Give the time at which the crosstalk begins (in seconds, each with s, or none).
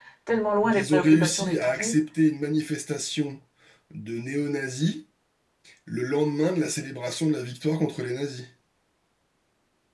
0.7 s